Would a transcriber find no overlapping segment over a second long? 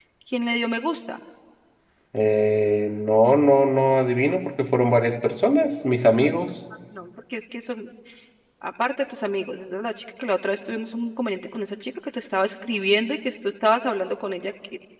Yes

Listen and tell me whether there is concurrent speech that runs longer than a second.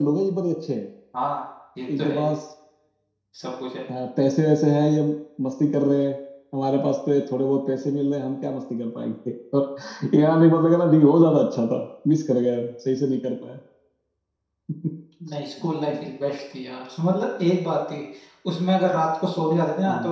No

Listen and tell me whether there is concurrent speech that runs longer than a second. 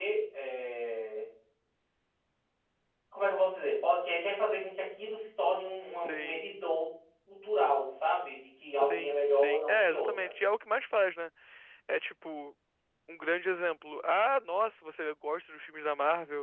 Yes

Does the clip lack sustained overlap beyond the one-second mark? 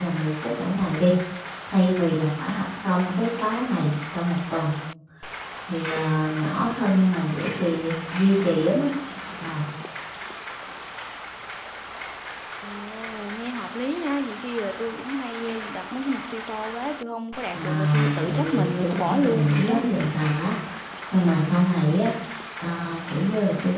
No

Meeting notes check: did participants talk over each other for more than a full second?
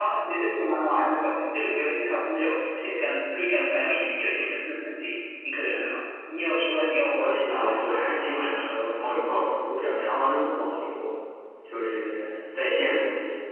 Yes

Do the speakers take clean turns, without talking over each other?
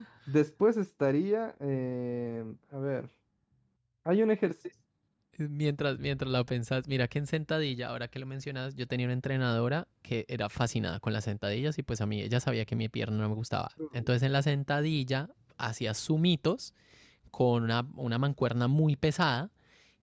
Yes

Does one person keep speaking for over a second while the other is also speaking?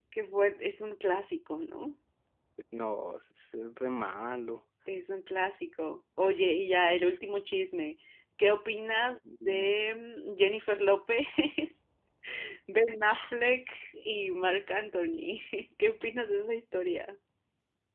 No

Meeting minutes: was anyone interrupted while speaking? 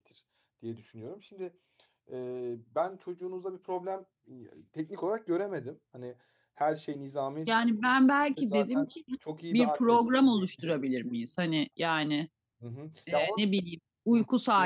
Yes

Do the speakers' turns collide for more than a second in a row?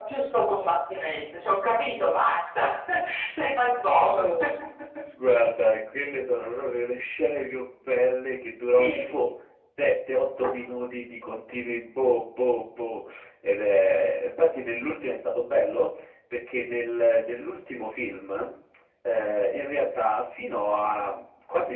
No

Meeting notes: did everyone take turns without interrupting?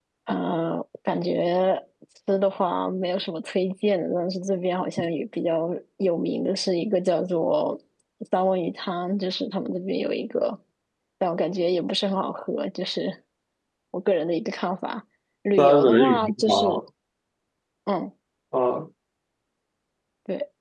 No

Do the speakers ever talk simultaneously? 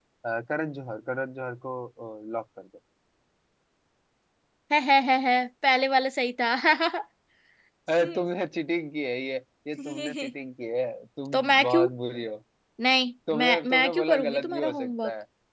Yes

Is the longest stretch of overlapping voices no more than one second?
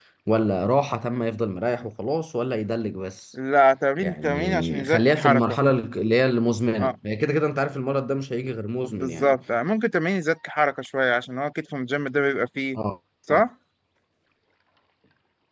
No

